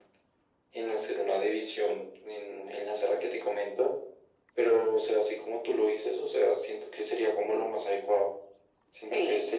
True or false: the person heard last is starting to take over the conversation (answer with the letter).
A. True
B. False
B